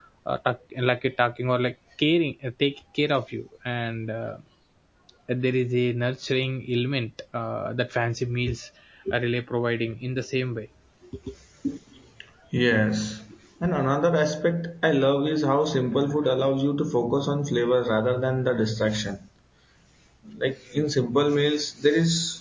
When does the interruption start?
none

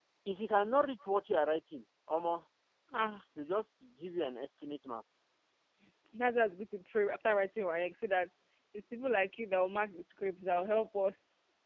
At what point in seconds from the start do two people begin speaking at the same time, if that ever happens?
none

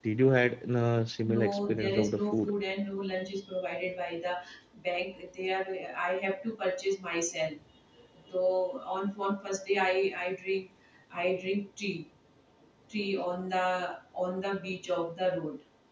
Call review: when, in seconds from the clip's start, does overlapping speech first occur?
1 s

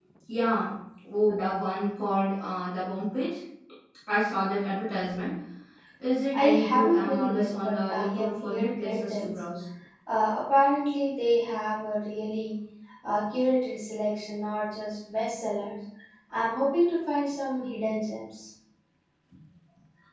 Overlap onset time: 6 s

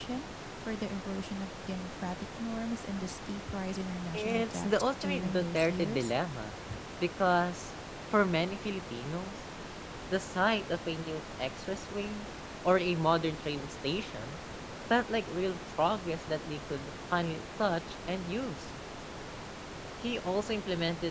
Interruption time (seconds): 4 s

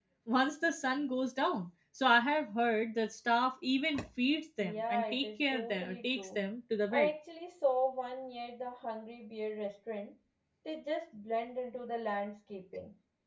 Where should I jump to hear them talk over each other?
5 s

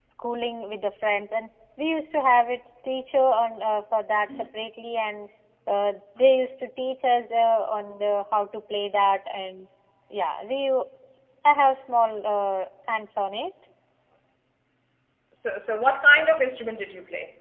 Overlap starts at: none

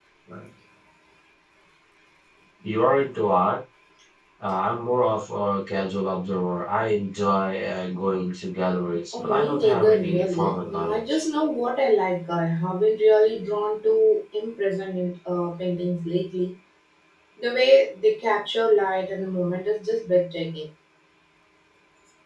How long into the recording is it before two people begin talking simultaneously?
9 s

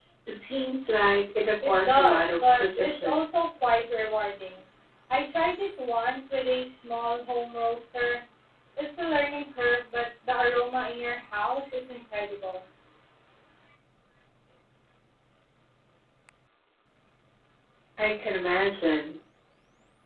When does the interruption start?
2 s

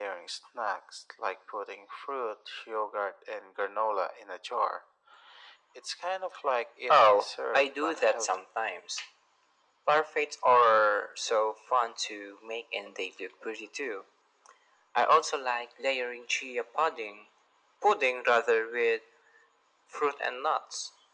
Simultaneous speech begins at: 7 s

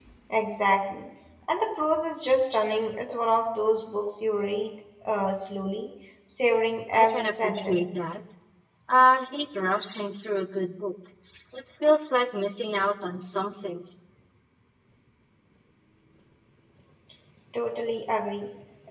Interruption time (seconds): 7 s

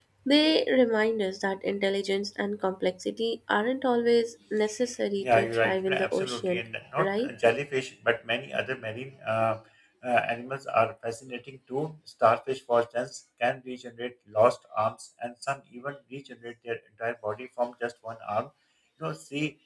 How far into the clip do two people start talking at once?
5 s

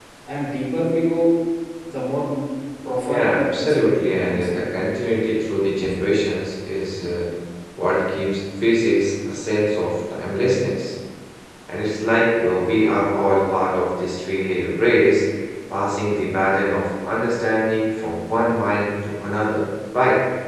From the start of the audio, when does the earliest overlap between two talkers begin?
3 s

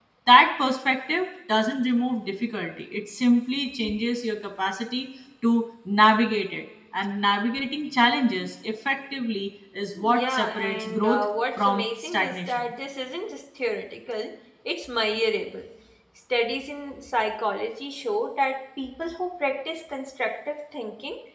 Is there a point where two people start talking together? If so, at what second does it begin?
10 s

